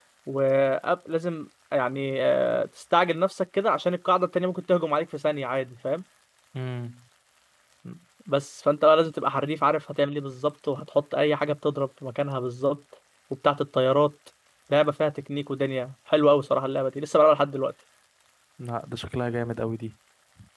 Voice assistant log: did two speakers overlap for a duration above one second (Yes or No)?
No